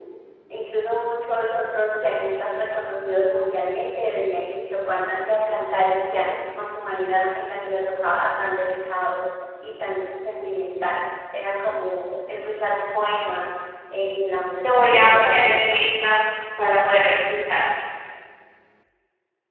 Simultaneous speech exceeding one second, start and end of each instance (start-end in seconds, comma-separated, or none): 14.3-15.9